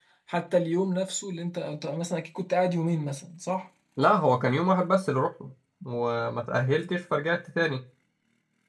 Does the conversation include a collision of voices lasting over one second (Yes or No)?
No